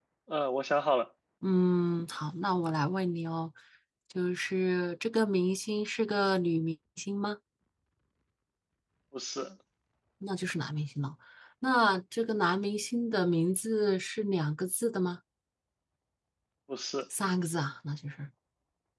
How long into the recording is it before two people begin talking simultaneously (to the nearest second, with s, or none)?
none